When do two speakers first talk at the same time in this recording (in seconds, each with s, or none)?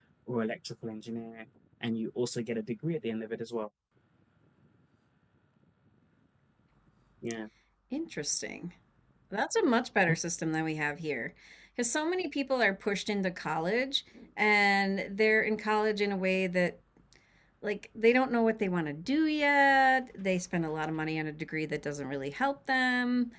none